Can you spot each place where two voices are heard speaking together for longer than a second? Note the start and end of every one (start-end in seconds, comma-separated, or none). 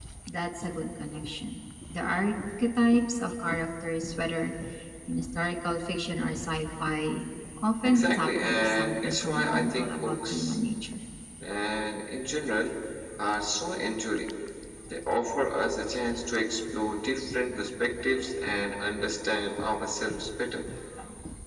7.8-10.6